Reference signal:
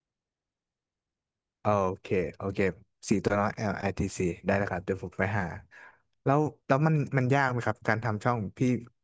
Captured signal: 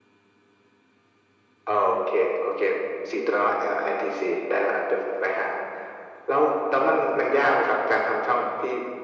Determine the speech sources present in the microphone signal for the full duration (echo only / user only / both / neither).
echo only